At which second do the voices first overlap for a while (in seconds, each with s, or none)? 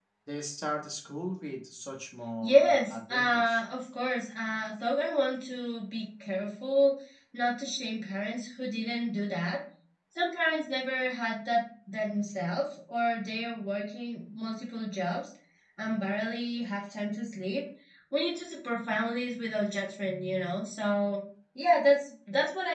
2.4 s